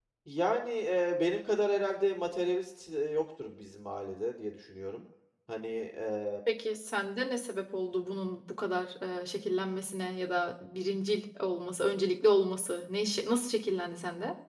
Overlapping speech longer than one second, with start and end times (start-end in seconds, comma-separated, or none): none